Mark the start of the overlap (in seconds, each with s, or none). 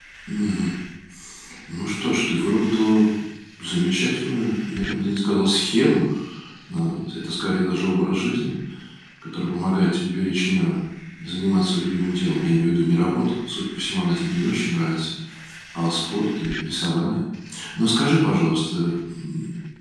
none